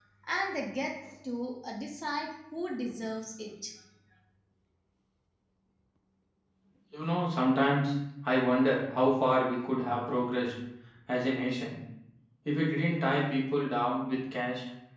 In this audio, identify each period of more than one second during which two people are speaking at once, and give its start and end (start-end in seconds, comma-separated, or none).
none